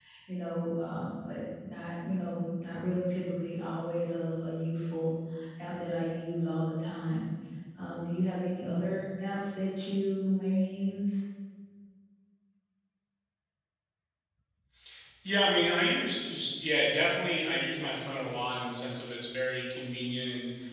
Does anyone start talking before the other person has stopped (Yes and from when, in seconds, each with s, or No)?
No